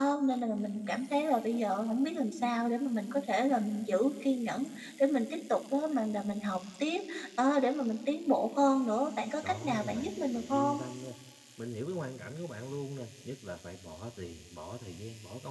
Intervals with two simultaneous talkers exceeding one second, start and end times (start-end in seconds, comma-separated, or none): 9.4-10.8